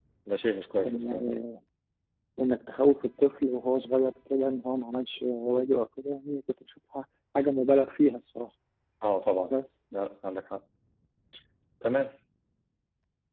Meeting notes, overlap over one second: none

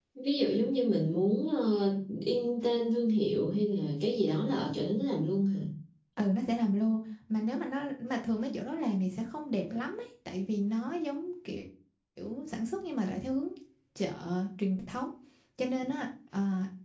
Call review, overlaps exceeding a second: none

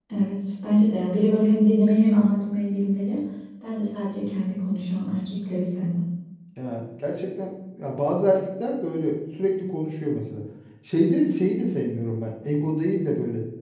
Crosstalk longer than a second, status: none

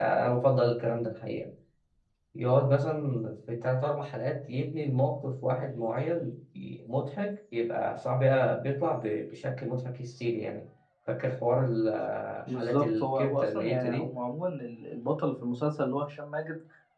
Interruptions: present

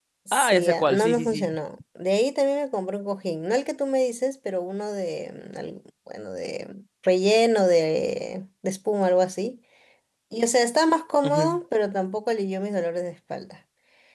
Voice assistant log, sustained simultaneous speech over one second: present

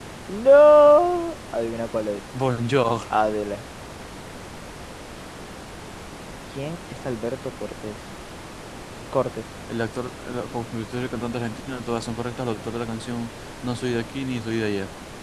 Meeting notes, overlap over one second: none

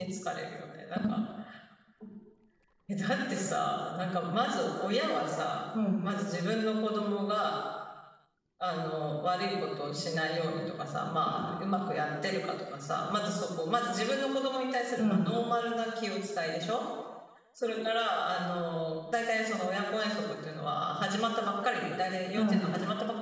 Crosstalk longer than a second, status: none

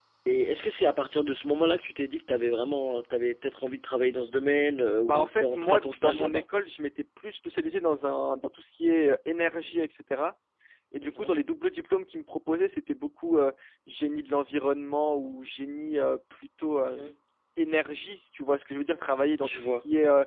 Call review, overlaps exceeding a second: present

